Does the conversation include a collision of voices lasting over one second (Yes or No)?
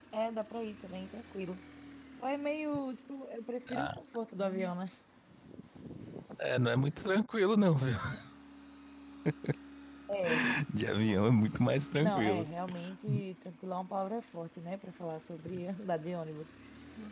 No